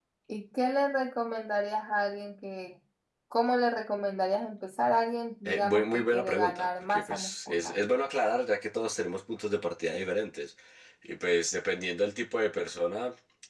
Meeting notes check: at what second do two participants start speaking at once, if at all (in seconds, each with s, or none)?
5.5 s